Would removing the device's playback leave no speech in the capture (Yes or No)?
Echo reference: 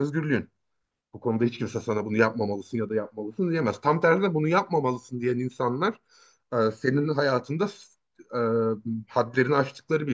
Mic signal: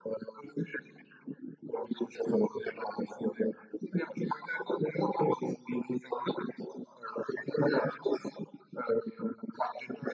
Yes